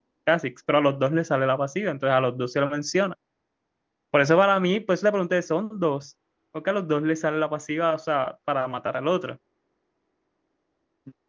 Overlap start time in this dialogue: none

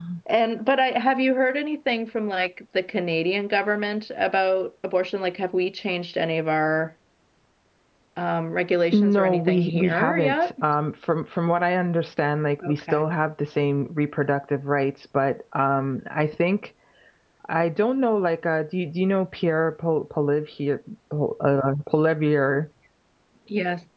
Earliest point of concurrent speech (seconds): 8.9 s

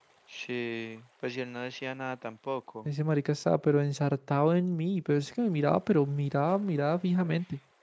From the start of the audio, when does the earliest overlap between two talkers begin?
none

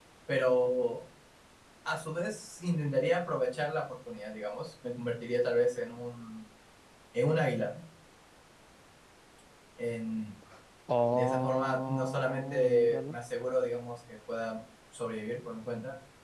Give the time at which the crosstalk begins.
11.1 s

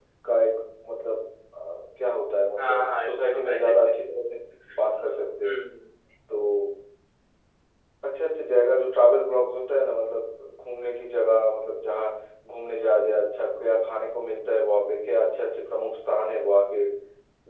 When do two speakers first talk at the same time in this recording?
2.6 s

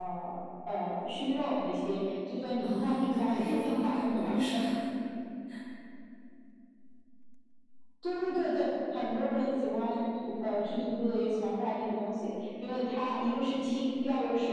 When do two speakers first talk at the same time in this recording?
2.6 s

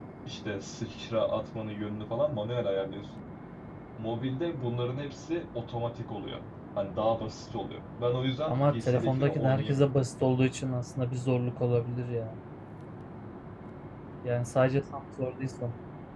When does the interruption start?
8.5 s

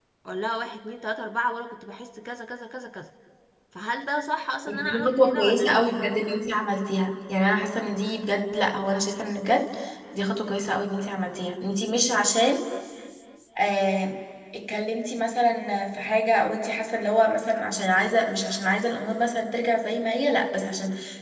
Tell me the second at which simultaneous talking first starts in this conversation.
4.7 s

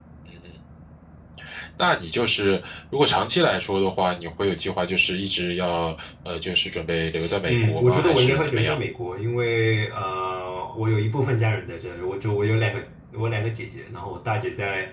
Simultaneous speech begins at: 7.5 s

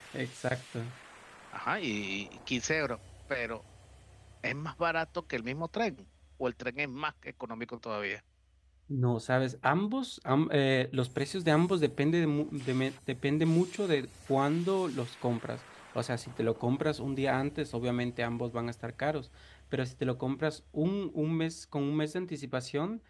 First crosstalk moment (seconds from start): none

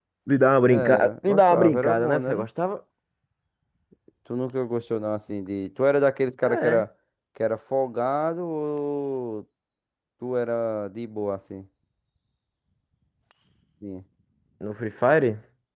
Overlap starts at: 0.6 s

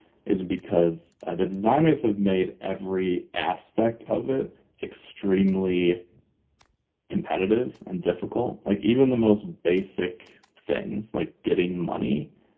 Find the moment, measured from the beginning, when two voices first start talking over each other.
none

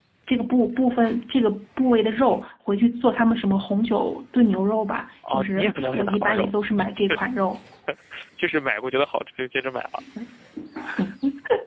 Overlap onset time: 5.2 s

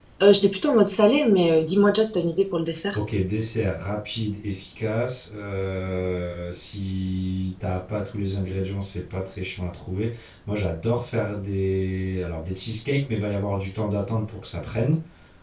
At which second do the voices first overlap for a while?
none

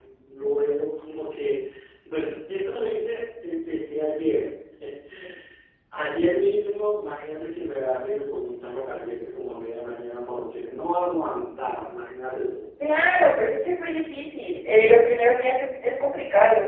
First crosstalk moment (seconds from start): none

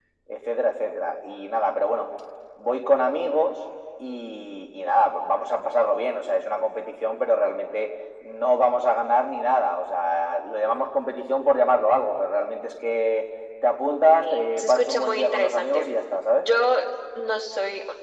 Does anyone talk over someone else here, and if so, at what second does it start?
14.2 s

